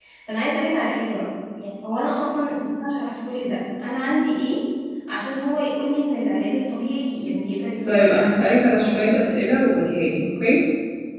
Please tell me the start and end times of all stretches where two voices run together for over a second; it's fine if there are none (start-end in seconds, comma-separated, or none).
7.8-9.4